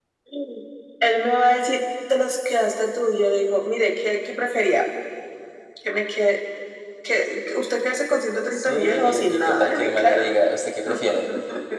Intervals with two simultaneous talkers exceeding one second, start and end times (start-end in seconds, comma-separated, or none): 8.5-10.4